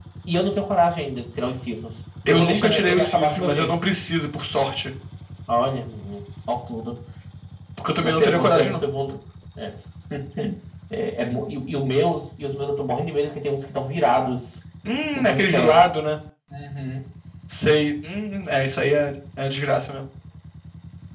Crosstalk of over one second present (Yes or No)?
Yes